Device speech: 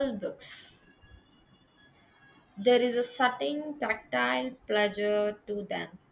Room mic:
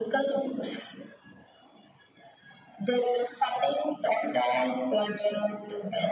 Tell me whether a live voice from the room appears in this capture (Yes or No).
No